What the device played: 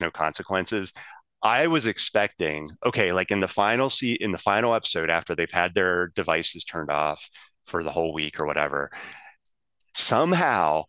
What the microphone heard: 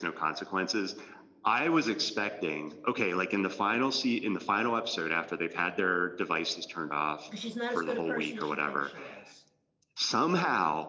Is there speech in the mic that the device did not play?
Yes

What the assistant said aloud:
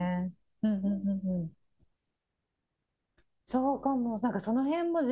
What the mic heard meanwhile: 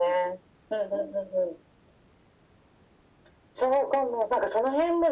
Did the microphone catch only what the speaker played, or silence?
Yes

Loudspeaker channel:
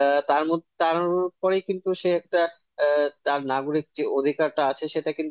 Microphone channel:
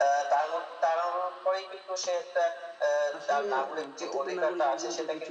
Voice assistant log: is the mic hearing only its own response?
No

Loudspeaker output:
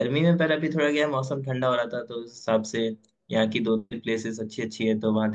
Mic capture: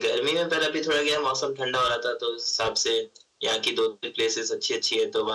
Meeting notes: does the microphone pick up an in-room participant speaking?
No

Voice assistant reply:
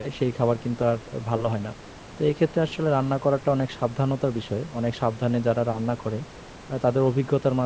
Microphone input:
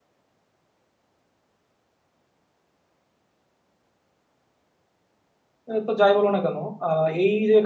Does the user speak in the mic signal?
Yes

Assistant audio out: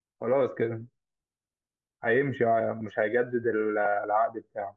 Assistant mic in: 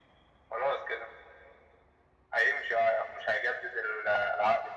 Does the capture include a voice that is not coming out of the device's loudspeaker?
No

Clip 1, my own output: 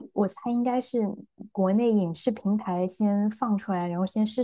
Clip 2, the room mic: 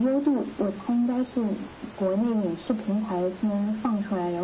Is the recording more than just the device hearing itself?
No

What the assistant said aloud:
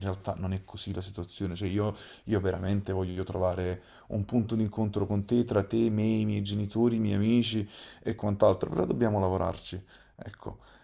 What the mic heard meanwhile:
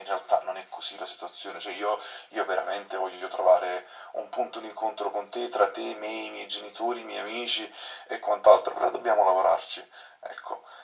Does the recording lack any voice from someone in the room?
Yes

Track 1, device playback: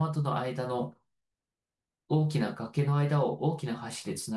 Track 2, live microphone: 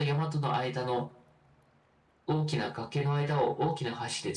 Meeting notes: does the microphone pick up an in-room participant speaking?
No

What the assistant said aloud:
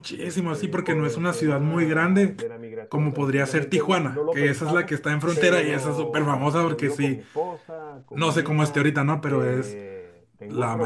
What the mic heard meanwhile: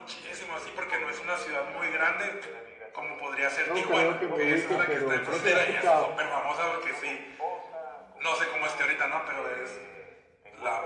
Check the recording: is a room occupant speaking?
Yes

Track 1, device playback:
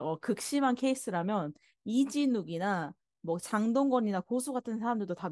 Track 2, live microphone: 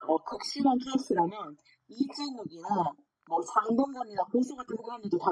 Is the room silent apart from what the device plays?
Yes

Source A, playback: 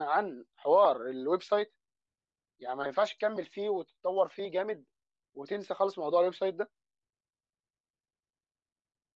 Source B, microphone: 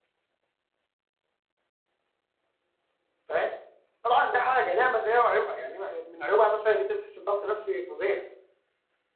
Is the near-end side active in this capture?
Yes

